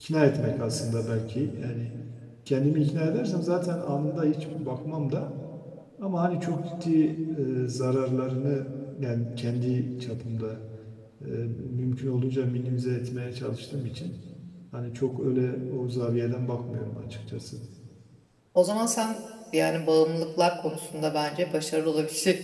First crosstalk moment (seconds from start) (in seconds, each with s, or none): none